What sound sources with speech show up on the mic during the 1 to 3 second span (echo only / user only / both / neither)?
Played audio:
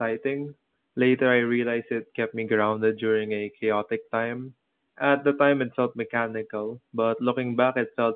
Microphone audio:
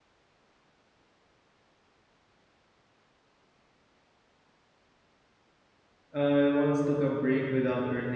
neither